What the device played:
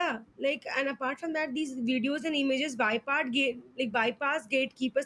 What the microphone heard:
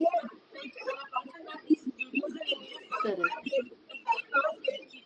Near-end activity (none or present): present